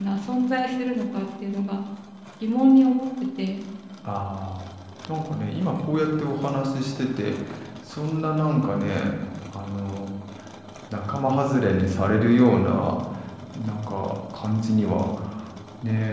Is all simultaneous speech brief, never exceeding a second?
Yes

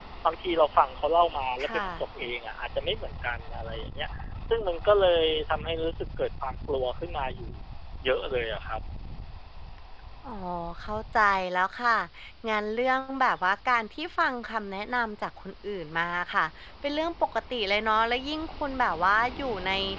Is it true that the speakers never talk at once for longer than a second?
Yes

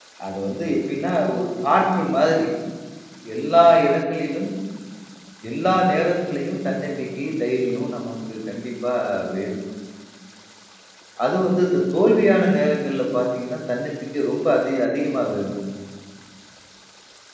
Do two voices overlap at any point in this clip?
No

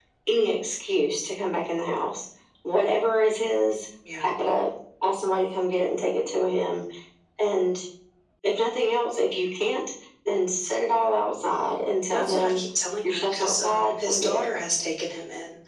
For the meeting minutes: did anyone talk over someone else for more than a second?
Yes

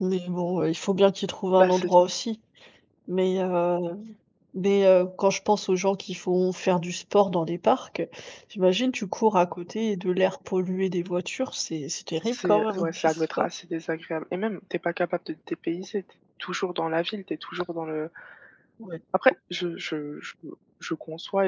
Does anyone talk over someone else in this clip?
Yes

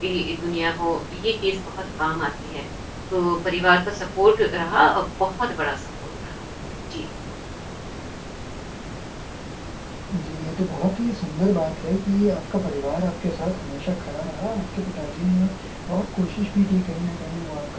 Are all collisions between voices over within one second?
Yes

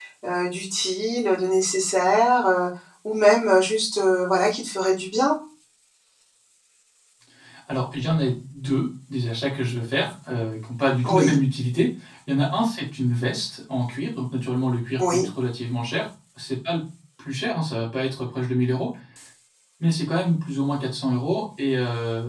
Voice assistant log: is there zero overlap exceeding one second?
Yes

